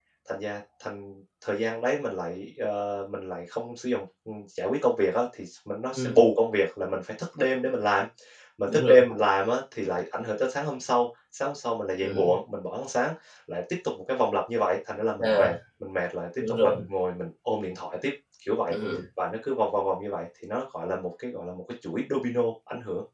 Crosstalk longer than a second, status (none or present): none